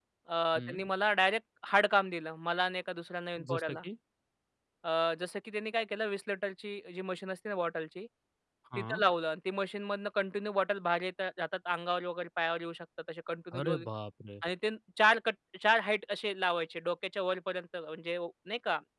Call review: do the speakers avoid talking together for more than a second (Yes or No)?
Yes